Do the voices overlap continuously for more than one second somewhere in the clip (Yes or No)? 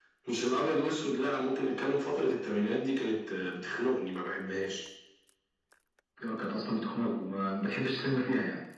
No